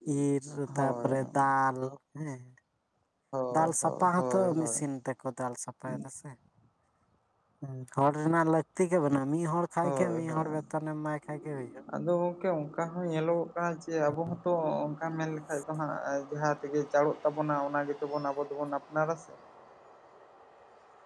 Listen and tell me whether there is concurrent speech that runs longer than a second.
Yes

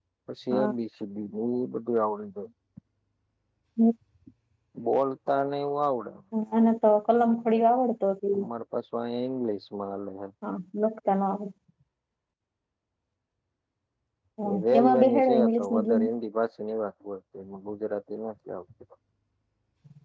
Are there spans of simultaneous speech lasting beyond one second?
Yes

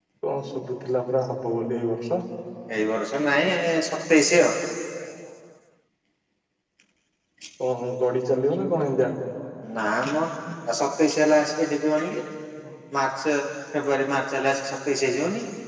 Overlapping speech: No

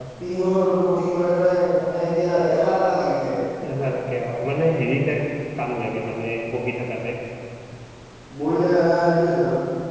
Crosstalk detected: No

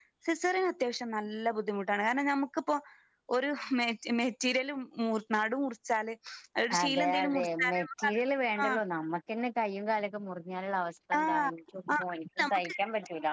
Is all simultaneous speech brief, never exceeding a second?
No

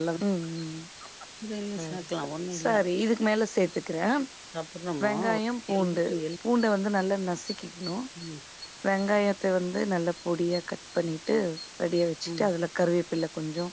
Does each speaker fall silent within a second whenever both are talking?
Yes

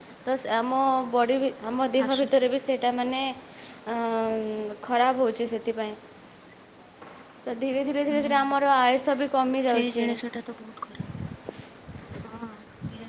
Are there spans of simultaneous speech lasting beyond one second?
No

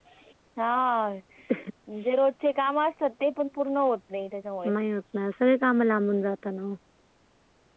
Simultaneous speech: No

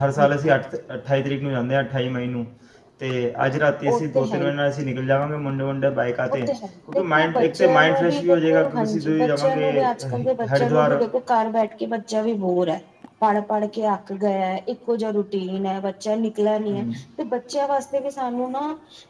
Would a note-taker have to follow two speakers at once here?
Yes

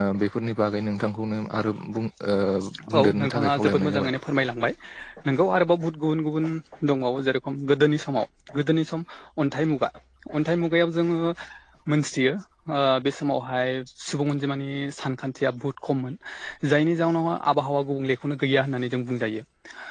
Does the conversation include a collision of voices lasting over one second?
Yes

